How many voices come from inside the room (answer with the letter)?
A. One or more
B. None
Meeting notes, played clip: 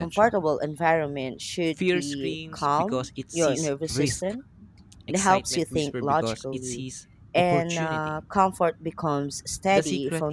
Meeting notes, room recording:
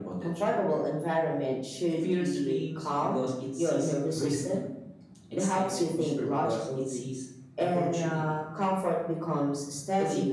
B